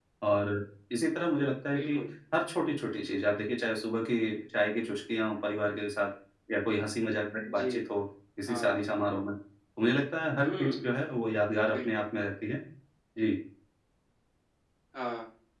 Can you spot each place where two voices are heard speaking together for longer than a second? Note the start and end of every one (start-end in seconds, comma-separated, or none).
none